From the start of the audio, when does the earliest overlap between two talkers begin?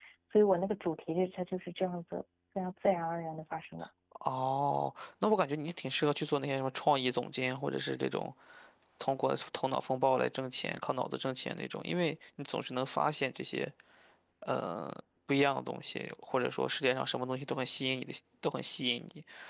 none

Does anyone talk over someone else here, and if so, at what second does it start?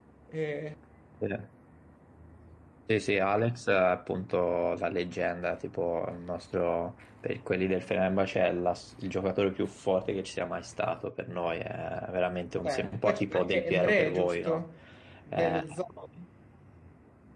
12.6 s

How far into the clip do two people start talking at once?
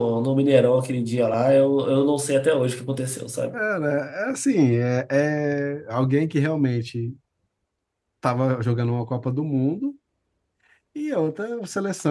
none

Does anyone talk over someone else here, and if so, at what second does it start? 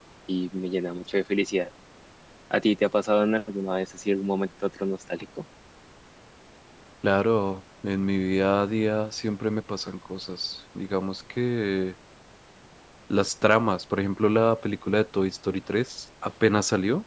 none

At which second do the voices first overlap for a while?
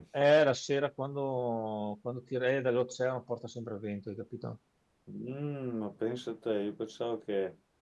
none

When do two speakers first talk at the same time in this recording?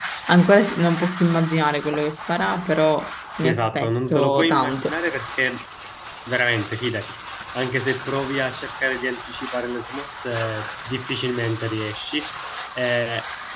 3.4 s

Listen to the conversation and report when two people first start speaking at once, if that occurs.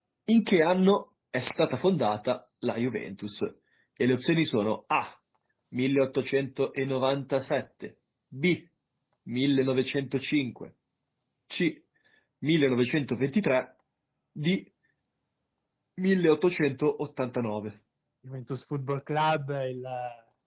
none

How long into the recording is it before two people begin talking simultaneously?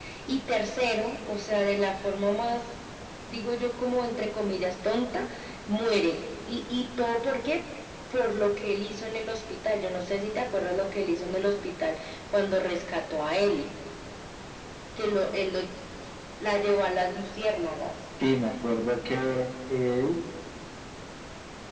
none

